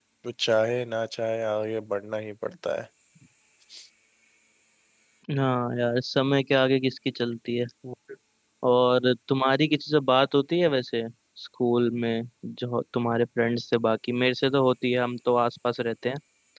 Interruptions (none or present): none